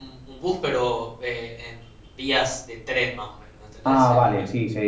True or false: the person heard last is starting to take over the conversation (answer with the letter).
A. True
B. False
A